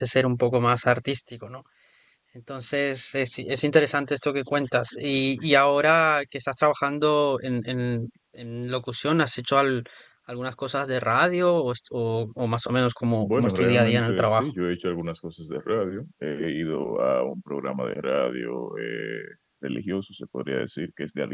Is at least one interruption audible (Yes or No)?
Yes